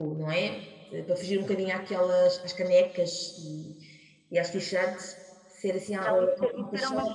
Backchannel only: No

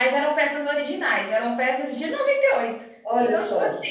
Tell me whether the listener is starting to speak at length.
No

